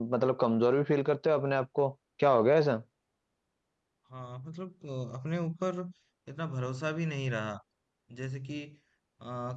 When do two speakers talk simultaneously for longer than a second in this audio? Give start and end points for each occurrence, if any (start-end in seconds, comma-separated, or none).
none